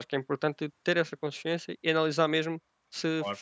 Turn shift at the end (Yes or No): No